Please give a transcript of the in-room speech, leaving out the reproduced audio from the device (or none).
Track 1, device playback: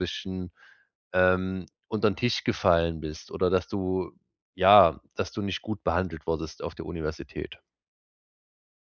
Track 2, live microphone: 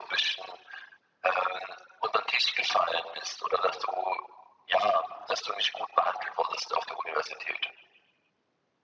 none